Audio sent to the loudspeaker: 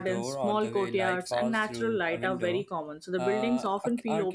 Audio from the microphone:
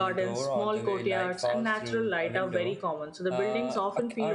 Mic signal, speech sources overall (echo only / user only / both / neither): echo only